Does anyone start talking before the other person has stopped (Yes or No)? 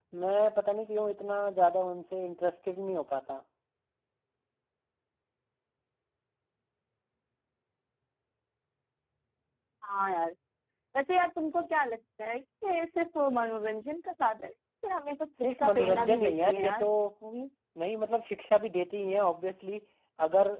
Yes